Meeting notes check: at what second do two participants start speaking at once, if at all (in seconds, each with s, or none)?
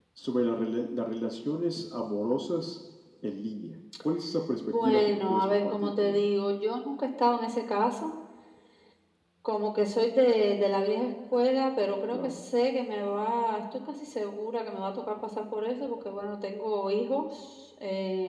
4.6 s